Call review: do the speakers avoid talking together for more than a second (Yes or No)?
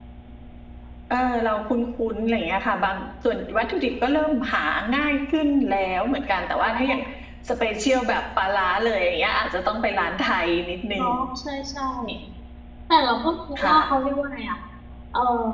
Yes